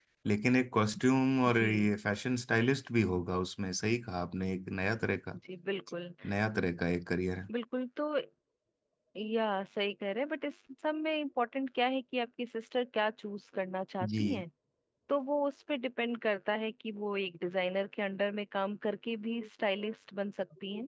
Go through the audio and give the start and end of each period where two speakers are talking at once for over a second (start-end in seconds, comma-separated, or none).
none